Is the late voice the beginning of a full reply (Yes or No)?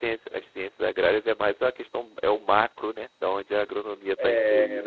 Yes